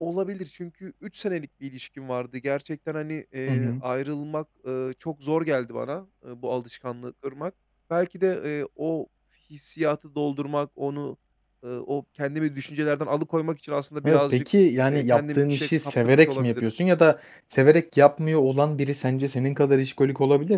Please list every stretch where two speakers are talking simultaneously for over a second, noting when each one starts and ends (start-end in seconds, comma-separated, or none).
14.9-16.7